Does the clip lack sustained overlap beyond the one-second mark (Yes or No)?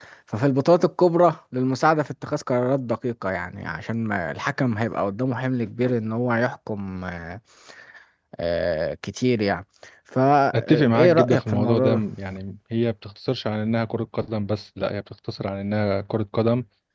No